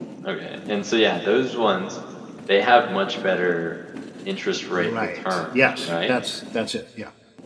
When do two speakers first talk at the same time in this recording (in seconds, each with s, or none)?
4.7 s